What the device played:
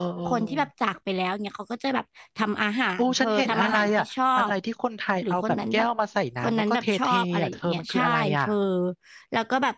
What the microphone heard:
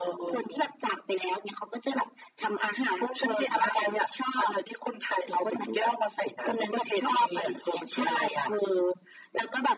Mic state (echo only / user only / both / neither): echo only